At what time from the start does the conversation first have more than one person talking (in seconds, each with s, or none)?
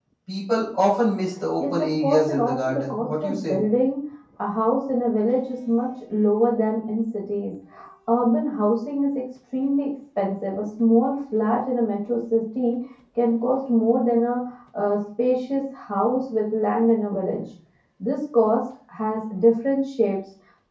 1.6 s